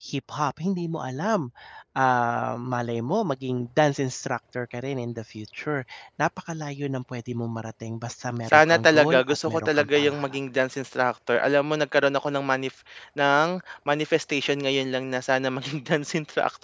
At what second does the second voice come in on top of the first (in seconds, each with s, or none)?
8.5 s